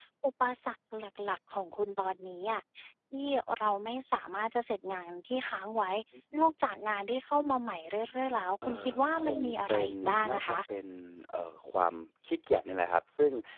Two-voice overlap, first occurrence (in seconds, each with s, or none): 8.6 s